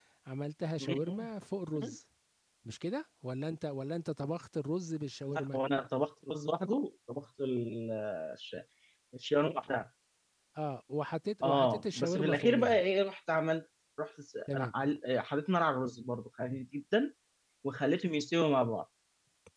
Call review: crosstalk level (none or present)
present